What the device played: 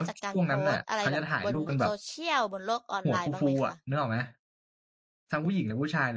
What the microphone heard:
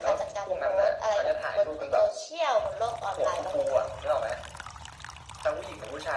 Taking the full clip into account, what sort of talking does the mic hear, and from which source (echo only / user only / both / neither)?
echo only